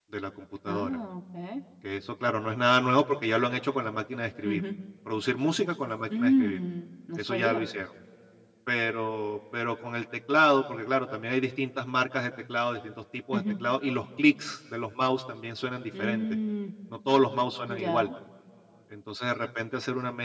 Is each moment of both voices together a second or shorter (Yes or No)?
Yes